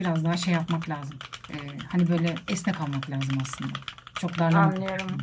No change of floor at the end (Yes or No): No